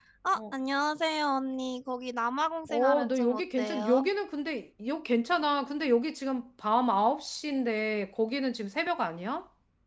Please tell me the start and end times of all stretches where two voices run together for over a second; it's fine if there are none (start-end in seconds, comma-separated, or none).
2.7-4.0